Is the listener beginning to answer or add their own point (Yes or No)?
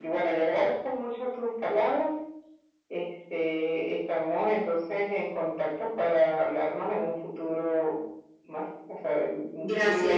Yes